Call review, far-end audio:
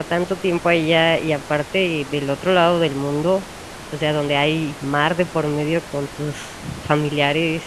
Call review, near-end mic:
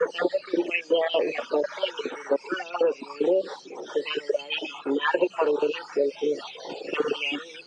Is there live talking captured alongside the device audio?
No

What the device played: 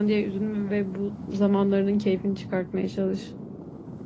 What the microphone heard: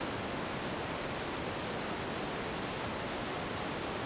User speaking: No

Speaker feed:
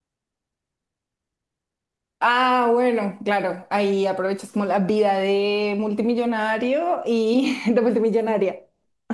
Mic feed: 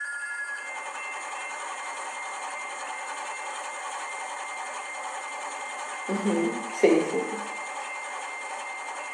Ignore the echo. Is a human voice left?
Yes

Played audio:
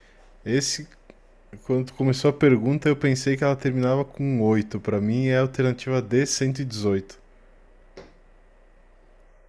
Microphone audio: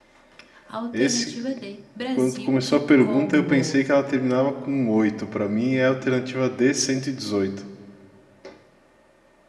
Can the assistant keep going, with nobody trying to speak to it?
No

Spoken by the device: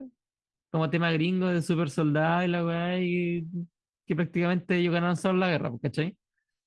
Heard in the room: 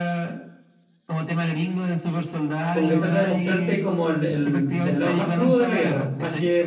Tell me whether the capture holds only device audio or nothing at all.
No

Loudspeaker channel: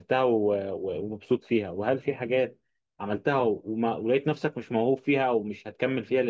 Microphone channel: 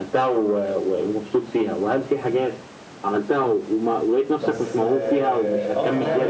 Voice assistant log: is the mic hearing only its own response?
No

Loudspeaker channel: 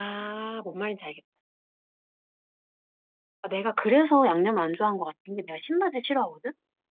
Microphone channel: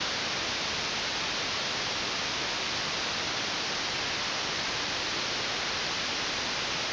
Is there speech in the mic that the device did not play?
No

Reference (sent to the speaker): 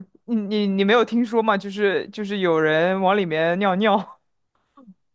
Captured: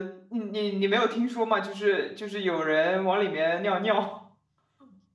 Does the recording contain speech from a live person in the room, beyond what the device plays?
No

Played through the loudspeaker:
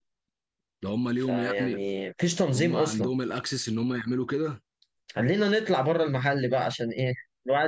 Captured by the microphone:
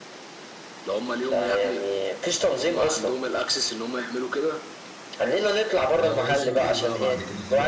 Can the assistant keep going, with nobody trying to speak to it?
No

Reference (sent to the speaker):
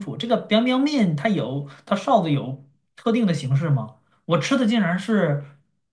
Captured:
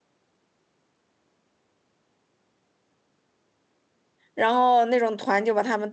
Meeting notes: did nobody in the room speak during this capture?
No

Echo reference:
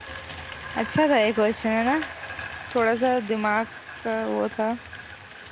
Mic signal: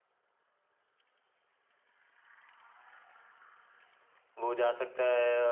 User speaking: Yes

